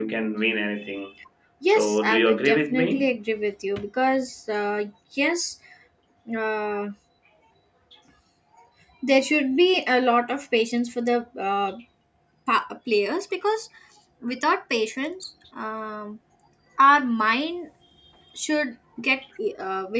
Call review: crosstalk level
present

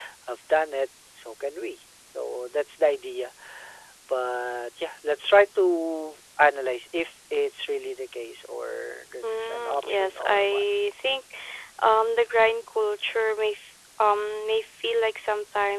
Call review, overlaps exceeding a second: present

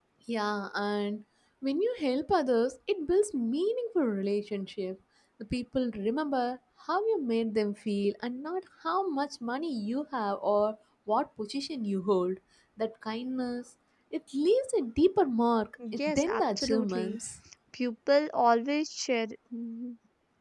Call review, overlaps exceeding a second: present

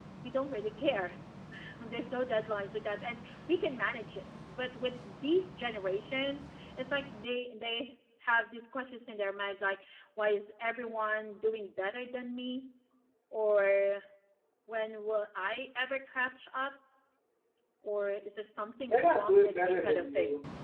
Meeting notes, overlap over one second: present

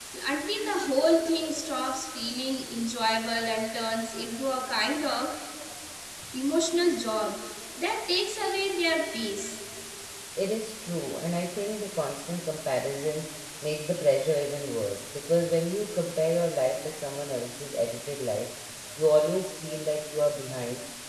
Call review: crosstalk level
none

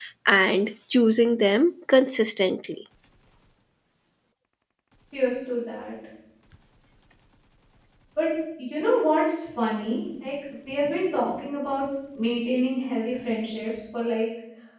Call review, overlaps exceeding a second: none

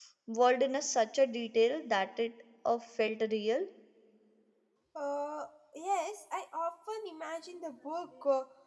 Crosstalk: none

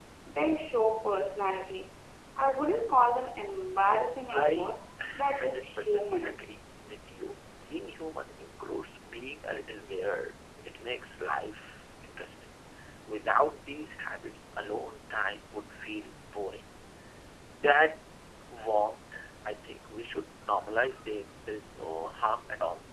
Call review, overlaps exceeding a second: present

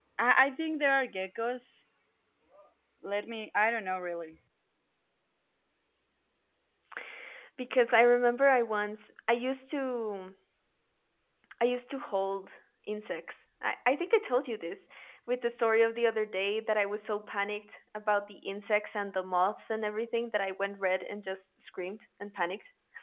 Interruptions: none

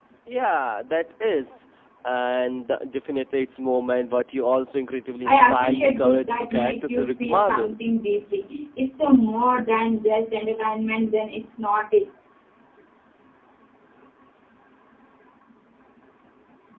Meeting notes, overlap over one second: present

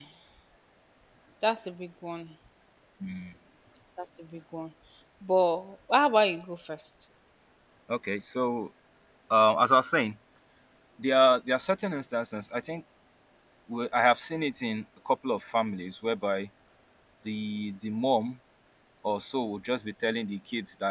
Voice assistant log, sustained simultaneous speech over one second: none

